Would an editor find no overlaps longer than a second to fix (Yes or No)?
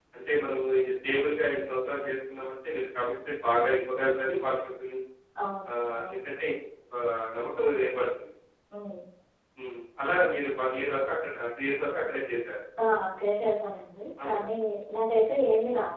Yes